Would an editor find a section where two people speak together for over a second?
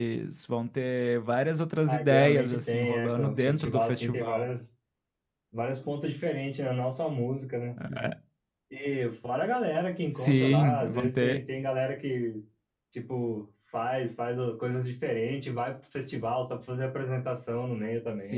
Yes, from 1.9 s

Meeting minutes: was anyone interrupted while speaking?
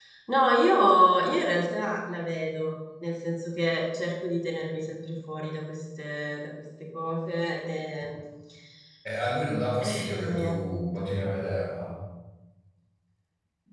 Yes, from 9.8 s

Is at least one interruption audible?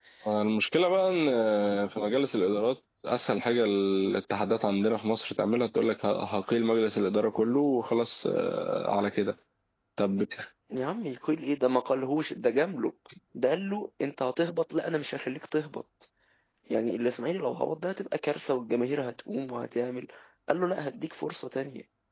No

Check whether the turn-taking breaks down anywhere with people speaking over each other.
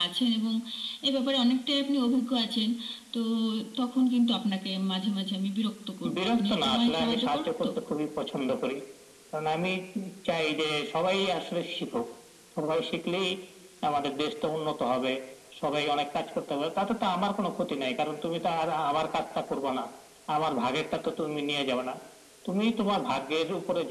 Yes, from 6.0 s

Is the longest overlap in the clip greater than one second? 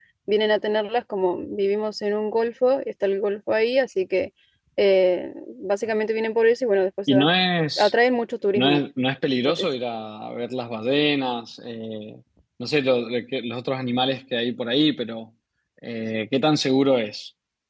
No

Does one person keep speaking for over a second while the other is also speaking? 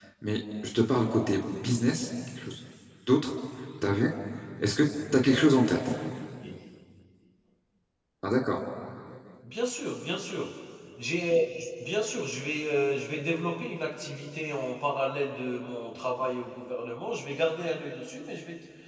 No

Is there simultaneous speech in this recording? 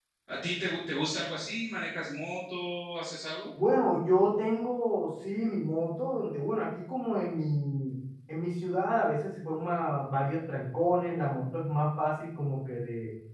No

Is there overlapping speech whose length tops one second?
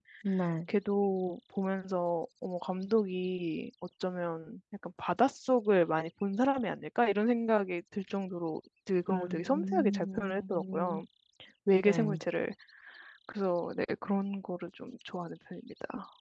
Yes, from 9.1 s

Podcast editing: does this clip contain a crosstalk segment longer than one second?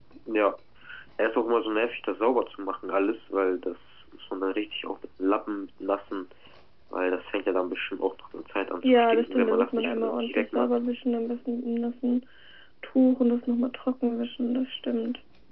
Yes, from 8.8 s

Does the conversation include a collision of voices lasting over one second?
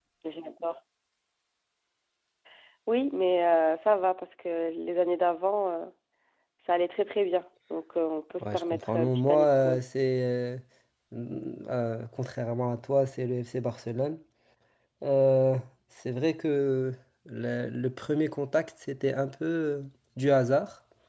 Yes, from 8.4 s

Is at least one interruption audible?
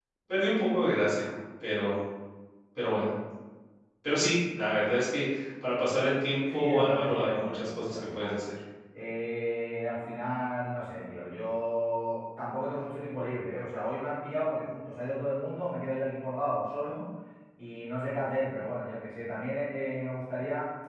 Yes, from 6.4 s

